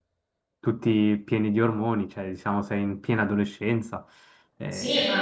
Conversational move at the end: taking over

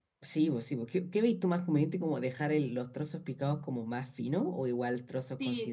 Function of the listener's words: taking over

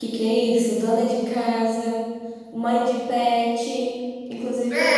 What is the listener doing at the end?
taking over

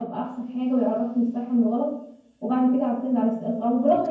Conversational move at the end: listening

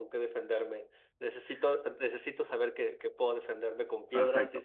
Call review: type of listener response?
taking over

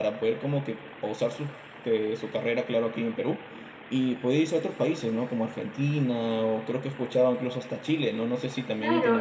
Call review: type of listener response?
taking over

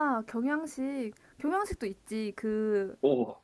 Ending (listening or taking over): listening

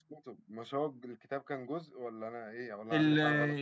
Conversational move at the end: taking over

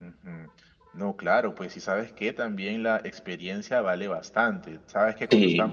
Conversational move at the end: listening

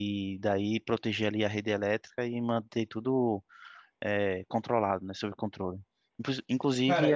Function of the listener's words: taking over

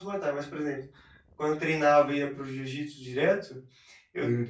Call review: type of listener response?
listening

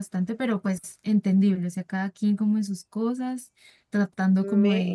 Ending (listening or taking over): listening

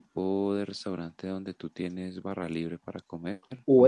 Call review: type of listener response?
taking over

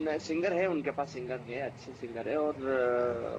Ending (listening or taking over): listening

